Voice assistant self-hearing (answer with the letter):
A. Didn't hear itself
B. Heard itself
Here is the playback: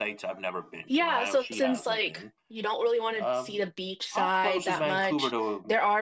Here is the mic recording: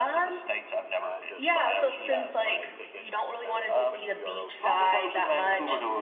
B